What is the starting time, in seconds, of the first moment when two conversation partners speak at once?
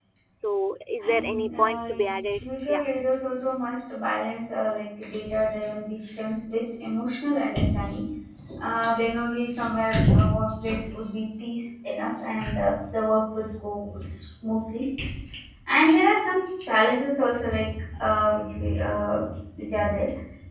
1.0 s

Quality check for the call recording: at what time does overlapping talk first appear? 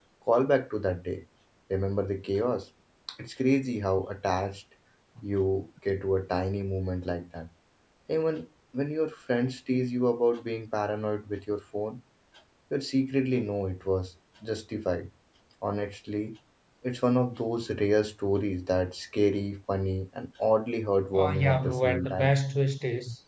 21.1 s

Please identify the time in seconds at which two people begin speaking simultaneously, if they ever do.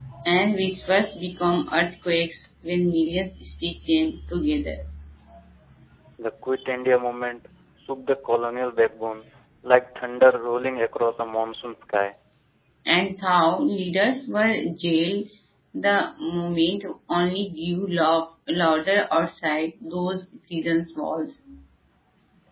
none

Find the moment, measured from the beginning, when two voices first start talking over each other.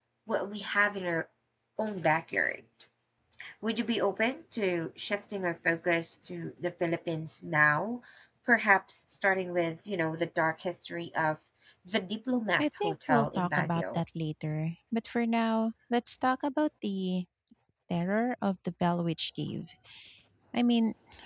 12.6 s

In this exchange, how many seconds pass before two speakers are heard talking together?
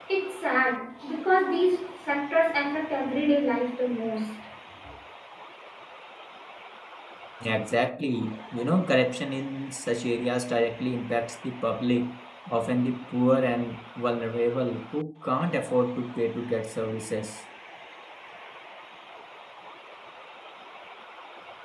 none

